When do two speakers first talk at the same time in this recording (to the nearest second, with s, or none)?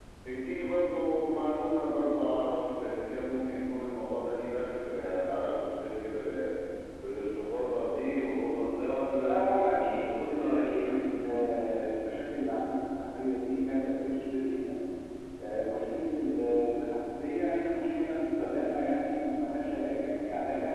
9 s